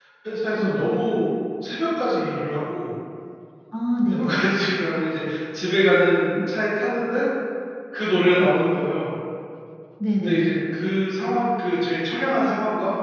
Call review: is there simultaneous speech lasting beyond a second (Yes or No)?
No